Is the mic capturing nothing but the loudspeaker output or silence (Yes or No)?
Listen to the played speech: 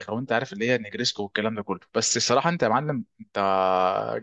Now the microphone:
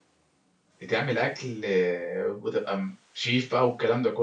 No